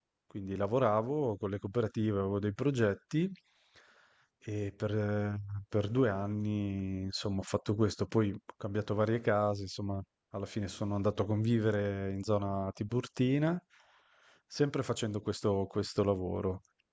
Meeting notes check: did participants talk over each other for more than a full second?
No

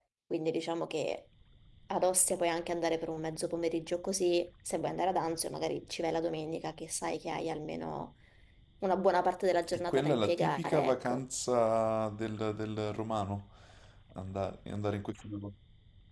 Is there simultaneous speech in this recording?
Yes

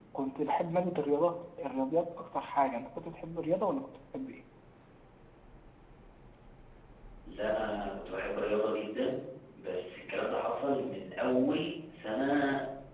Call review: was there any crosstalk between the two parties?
No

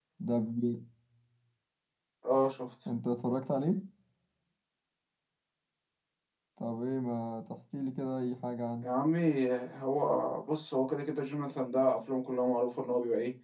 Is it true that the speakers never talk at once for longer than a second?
Yes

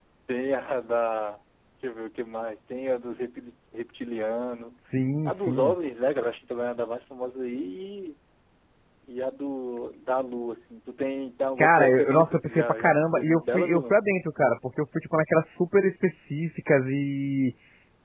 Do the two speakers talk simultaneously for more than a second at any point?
Yes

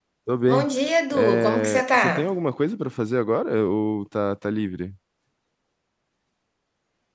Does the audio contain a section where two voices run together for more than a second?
Yes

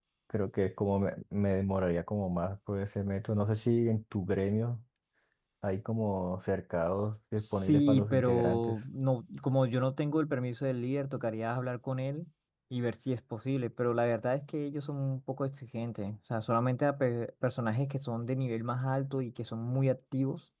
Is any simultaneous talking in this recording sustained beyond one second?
Yes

